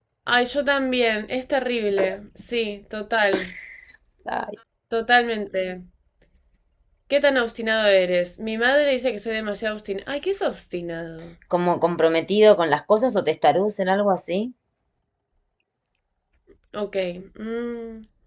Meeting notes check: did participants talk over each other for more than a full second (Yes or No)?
No